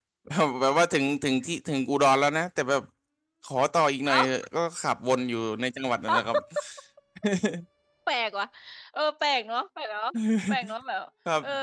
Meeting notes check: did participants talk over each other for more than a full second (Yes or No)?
No